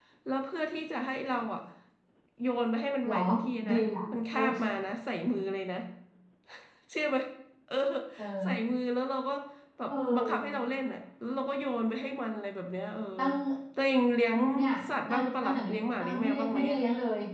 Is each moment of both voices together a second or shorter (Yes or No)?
No